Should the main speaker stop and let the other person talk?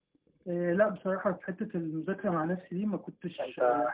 No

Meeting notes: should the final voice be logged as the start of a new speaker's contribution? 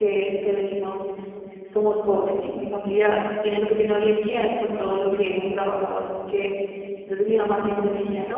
No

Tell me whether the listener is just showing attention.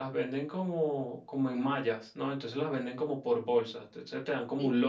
Yes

